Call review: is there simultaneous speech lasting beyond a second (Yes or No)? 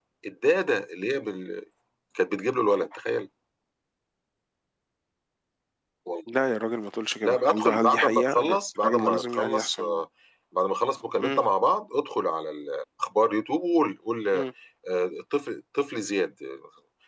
Yes